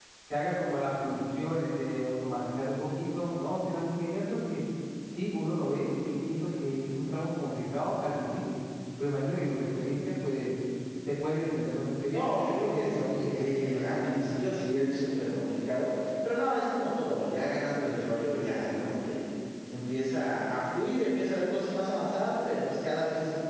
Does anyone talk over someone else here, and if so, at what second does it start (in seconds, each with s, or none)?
12.1 s